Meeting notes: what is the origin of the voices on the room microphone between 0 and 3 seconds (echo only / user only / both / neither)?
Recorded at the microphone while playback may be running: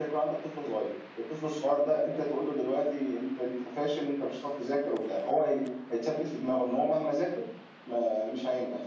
echo only